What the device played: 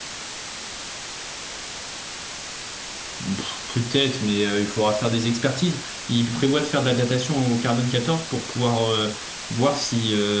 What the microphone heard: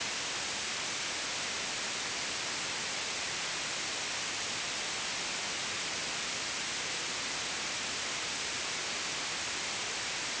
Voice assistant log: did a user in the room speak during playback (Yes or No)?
No